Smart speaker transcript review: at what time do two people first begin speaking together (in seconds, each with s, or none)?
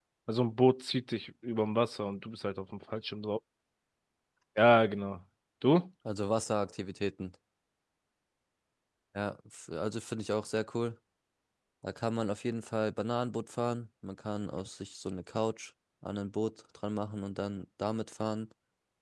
none